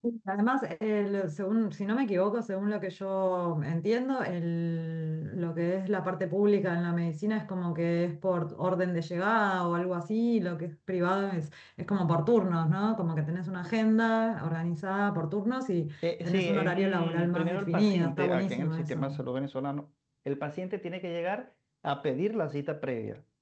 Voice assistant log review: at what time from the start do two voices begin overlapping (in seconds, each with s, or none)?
16.0 s